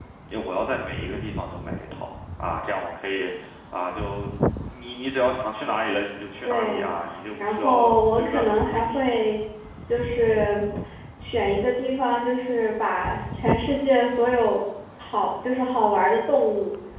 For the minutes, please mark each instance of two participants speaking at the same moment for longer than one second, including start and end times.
7.4-9.2

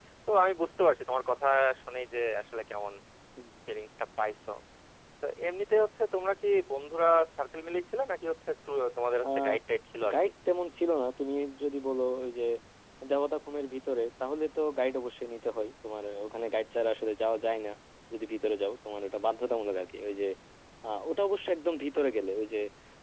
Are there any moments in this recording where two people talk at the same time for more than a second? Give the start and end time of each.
none

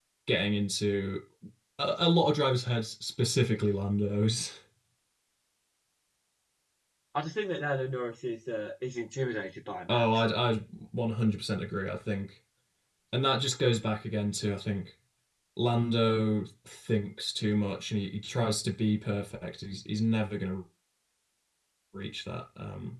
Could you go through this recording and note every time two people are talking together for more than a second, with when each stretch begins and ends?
none

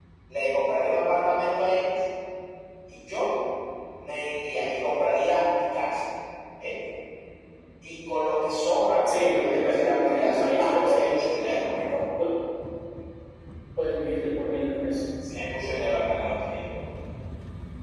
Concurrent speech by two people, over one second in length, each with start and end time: 9.2-11.5

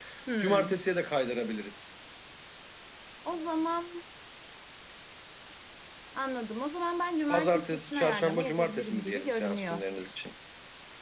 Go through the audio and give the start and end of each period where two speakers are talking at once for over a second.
7.3-9.8

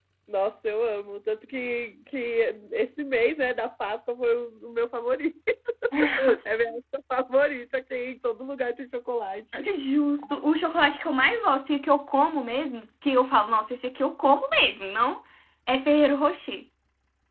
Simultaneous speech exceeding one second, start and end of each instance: none

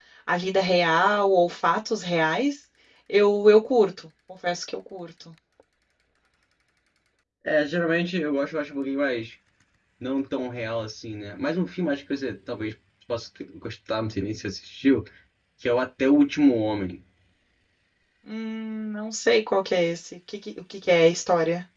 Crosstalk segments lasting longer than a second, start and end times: none

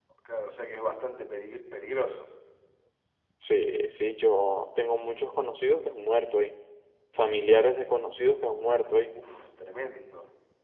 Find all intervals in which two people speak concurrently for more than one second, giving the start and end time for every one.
none

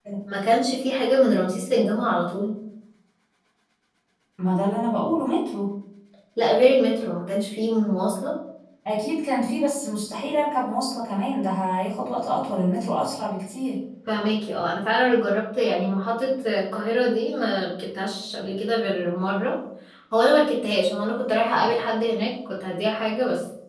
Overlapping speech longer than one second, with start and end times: none

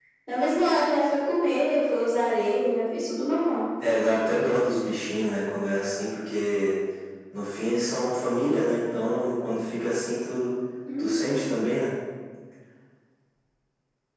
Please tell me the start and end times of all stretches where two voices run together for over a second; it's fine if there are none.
none

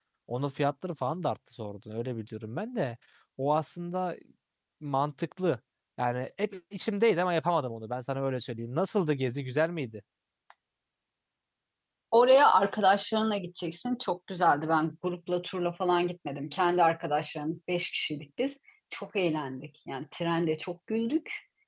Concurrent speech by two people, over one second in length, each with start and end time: none

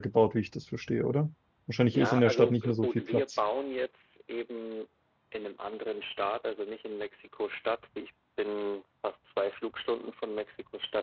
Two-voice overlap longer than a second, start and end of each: 1.9-3.2

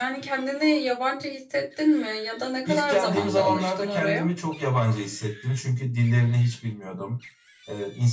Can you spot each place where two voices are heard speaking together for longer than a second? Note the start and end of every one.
2.7-4.3

